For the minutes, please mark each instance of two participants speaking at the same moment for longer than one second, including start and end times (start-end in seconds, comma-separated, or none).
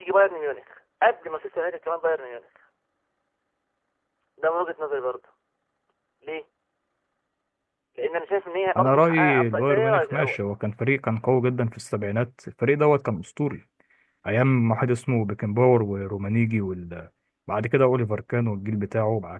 8.8-10.4